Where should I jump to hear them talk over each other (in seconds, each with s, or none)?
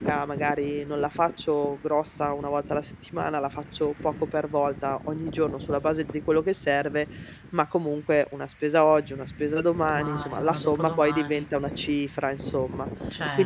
9.9 s